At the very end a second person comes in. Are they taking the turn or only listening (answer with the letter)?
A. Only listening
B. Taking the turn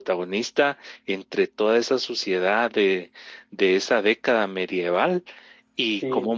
A